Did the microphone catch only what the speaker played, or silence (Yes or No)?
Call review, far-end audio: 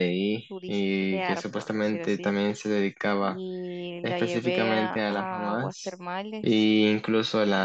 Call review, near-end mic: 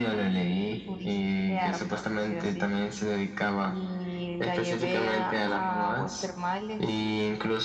Yes